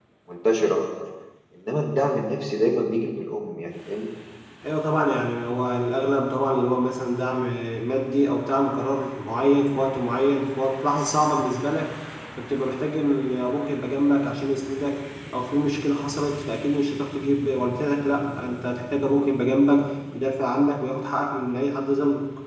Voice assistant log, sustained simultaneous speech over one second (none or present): none